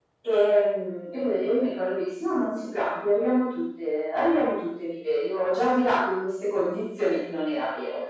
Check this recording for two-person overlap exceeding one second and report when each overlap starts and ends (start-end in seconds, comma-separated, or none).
none